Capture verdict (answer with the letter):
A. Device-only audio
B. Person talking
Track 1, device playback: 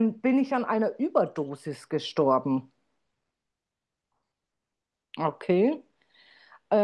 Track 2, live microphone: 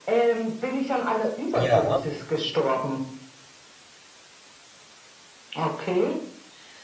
B